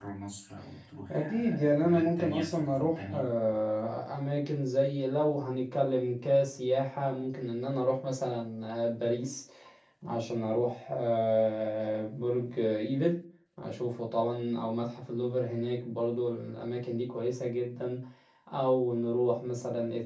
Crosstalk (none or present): present